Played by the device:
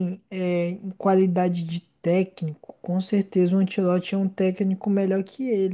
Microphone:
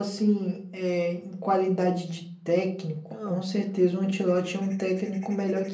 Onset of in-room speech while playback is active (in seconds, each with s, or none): 3.1 s